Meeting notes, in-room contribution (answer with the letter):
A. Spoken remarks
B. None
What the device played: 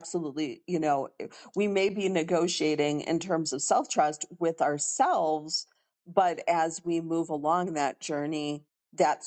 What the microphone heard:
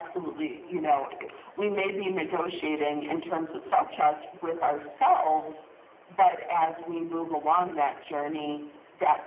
B